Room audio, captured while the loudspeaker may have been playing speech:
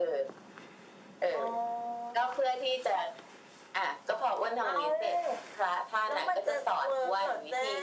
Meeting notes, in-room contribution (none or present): none